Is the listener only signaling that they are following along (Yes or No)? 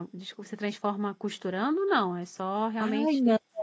No